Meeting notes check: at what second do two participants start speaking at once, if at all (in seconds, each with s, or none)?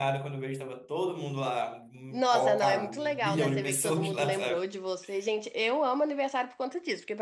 2.1 s